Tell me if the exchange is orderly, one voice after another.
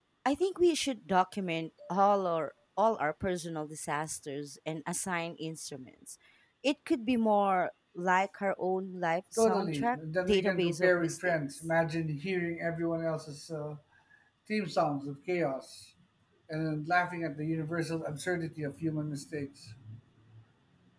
No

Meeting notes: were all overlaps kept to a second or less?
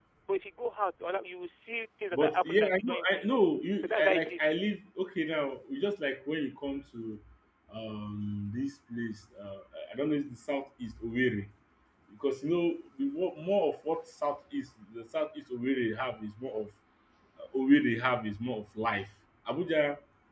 No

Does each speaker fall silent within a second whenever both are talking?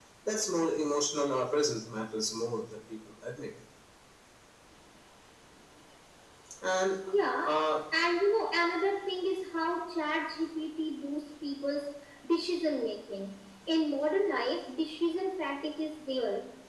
Yes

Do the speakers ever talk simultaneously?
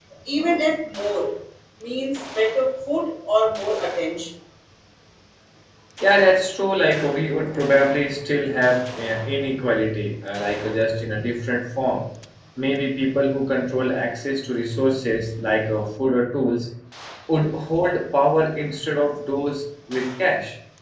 No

